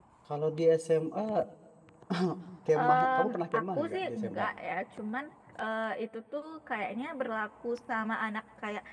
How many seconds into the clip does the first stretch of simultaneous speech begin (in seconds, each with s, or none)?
2.8 s